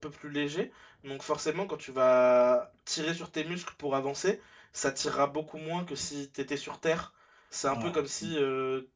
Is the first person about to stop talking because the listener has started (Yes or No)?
No